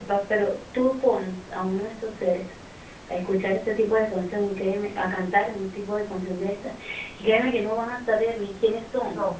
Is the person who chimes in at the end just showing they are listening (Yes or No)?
Yes